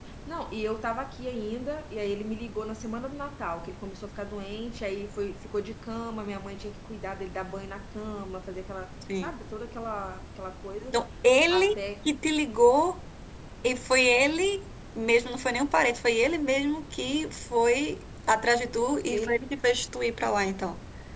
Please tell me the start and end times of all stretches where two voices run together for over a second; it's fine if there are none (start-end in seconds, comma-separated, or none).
none